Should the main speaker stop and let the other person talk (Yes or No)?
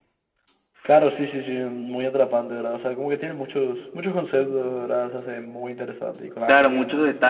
Yes